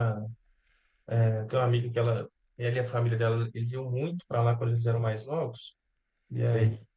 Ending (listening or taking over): listening